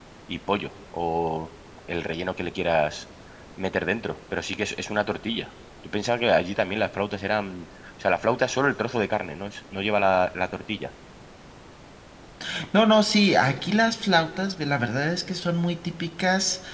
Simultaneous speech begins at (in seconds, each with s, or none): none